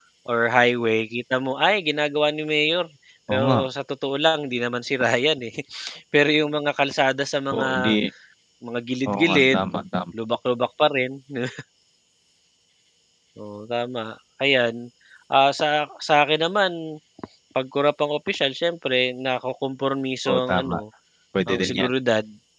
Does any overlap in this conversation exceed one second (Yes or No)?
No